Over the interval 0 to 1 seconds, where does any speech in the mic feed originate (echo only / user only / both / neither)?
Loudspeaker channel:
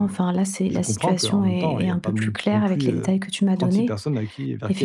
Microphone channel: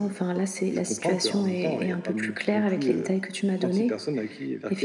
echo only